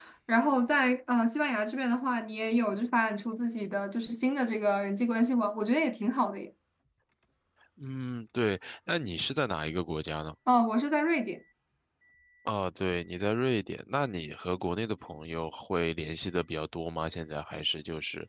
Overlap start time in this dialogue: none

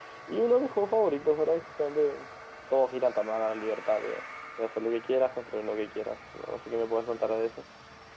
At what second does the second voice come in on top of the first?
none

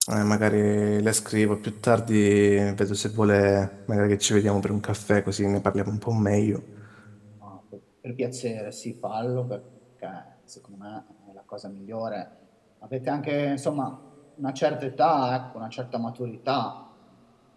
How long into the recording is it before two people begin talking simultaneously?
none

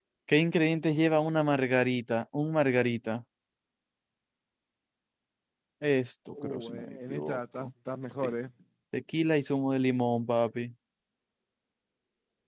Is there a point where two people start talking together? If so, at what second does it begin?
6.4 s

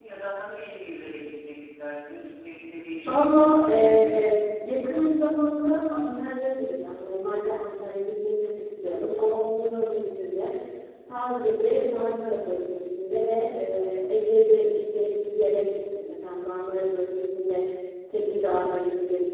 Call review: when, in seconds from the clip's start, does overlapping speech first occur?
3.1 s

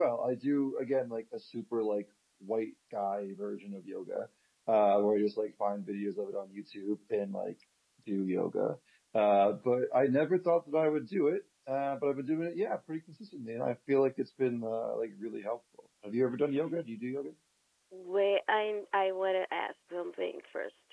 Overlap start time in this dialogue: none

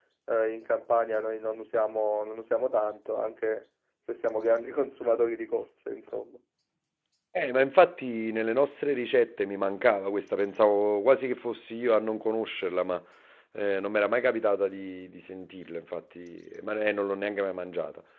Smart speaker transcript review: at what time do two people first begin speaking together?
none

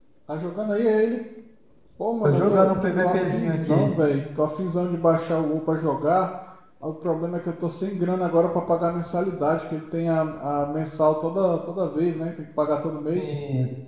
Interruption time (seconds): 2.2 s

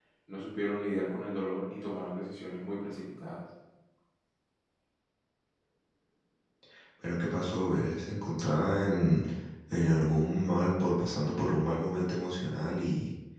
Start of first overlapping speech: none

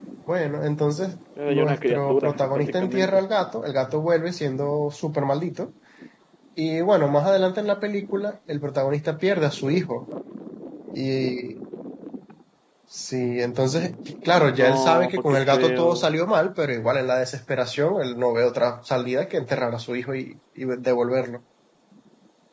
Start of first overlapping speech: 1.5 s

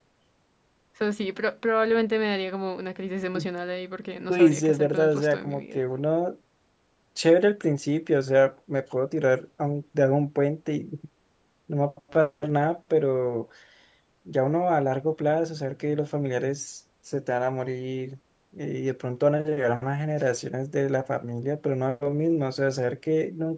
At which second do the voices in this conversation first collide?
4.3 s

